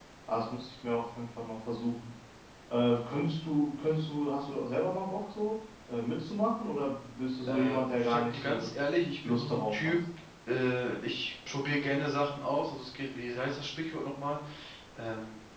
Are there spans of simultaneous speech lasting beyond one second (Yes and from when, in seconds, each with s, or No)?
Yes, from 7.5 s